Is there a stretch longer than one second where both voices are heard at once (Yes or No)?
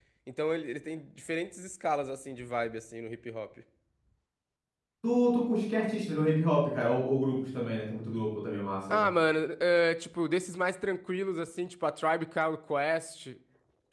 No